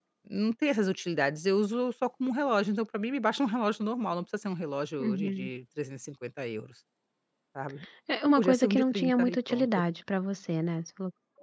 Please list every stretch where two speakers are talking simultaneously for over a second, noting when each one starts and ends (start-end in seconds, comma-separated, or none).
8.4-9.7